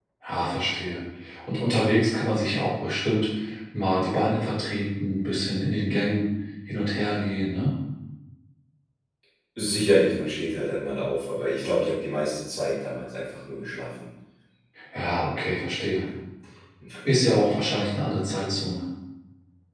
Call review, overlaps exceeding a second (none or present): none